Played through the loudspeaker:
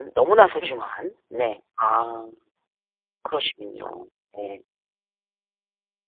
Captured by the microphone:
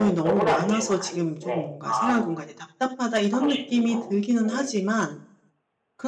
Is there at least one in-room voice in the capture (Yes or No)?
Yes